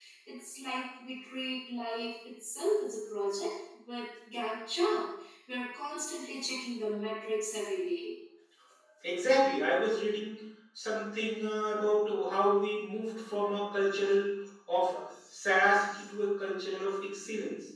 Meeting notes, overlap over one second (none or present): none